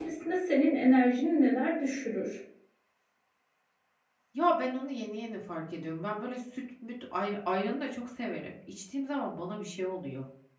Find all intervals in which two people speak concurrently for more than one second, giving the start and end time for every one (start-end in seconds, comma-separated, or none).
none